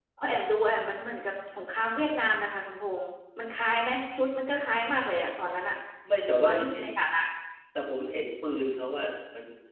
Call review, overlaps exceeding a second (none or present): none